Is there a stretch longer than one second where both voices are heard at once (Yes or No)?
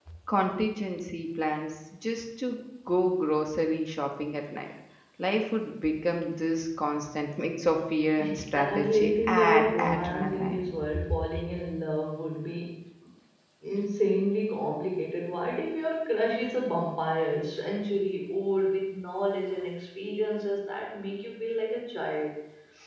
Yes